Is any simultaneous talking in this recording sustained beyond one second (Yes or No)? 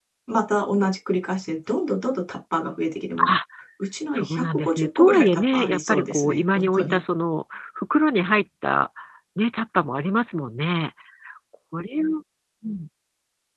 Yes